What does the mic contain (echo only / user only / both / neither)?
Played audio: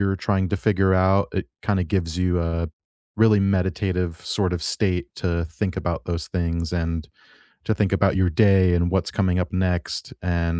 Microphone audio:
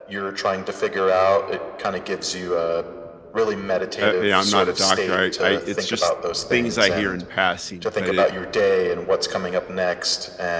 both